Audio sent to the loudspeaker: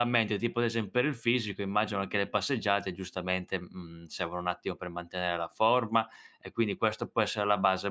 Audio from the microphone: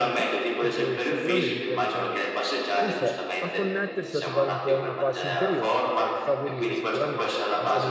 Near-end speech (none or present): present